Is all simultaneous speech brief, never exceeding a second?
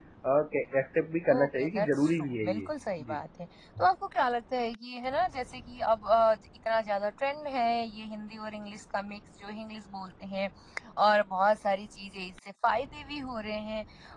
No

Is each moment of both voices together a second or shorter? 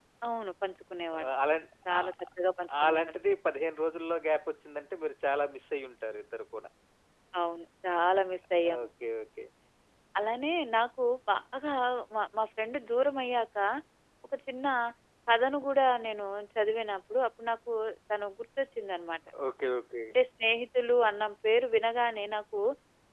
Yes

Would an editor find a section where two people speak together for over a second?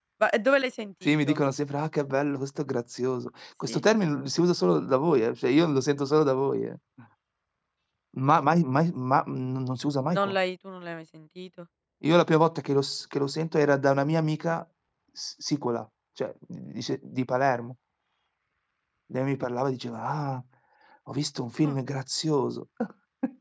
No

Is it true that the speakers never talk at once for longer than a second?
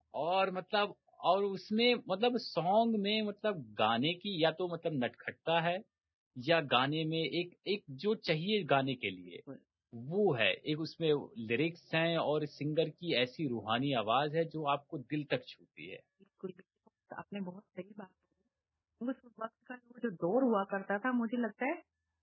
Yes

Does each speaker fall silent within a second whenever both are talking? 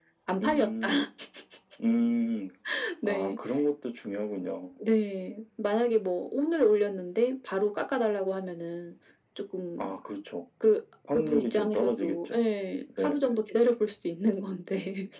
No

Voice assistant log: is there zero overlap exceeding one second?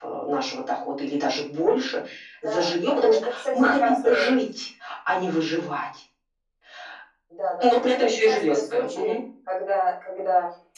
No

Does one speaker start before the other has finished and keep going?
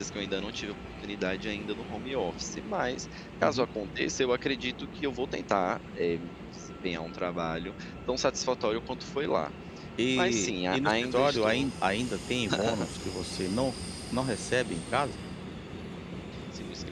Yes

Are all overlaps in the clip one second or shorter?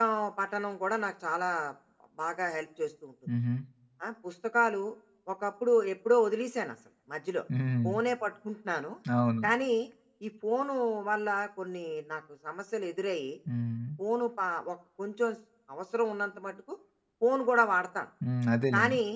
Yes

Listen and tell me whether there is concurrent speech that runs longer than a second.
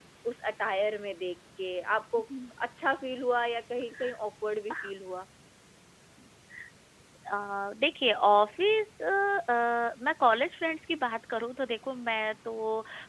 No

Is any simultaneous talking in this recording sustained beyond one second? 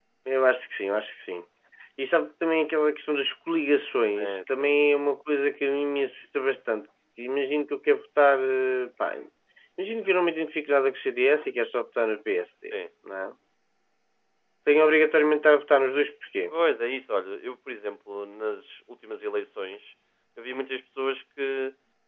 No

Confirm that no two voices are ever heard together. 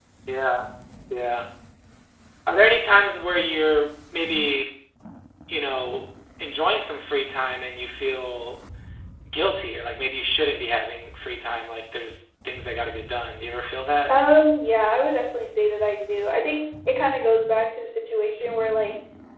Yes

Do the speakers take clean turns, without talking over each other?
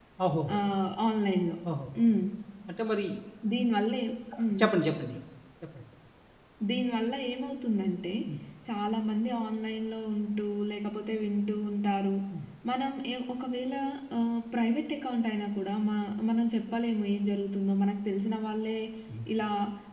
Yes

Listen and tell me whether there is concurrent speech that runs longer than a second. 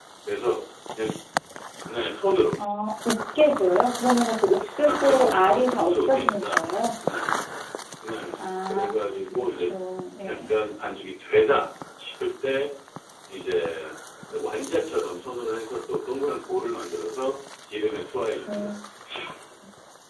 Yes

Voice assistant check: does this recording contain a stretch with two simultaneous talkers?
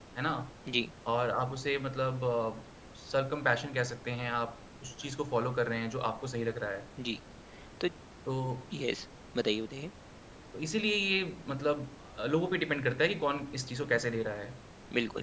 No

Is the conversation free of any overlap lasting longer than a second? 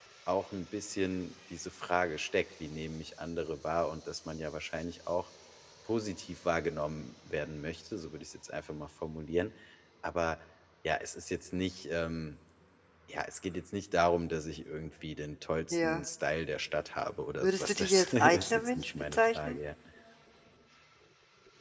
No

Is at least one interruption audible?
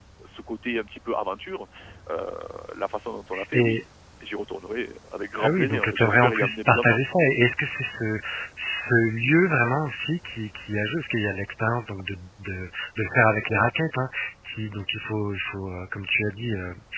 Yes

